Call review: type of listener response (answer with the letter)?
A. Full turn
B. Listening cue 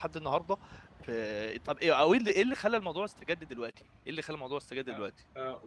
A